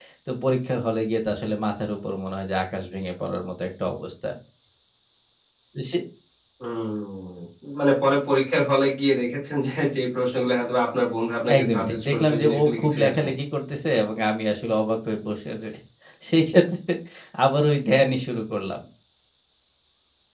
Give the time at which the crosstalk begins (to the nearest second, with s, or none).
11 s